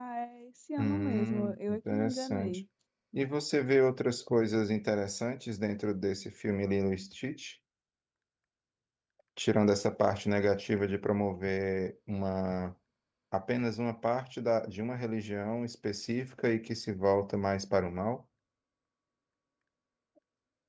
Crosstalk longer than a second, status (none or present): present